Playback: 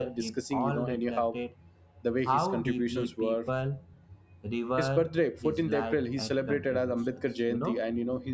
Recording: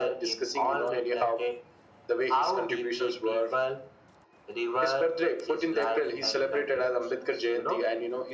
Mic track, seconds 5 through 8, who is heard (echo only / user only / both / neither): echo only